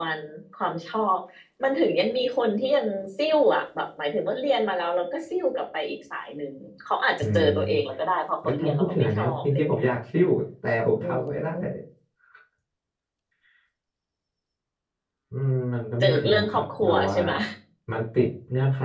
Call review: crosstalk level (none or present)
present